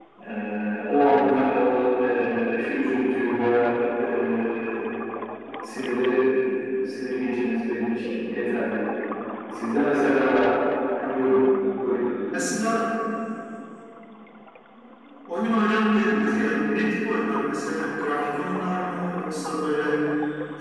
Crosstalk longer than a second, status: none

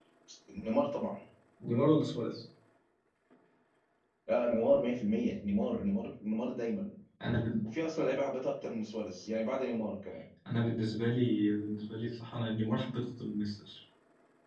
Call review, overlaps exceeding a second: none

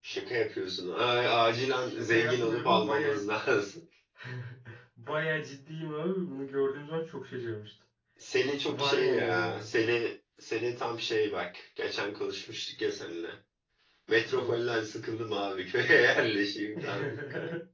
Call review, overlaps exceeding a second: present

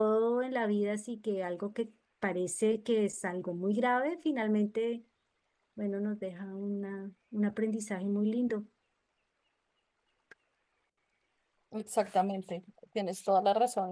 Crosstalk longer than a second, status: none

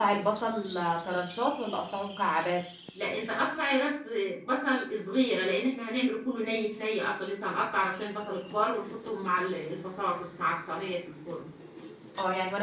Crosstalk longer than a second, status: none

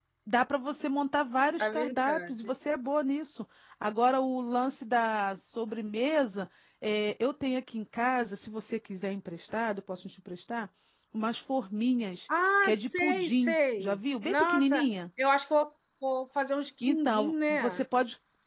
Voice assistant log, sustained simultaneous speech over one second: present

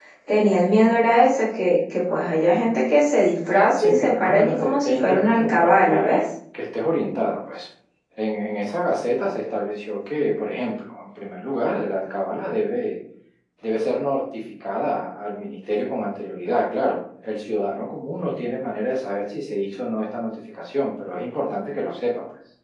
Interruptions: present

